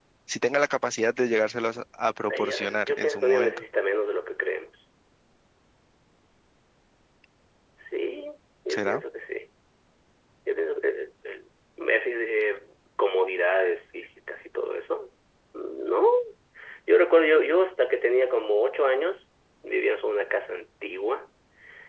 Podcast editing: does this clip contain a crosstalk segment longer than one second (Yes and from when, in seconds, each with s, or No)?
Yes, from 2.3 s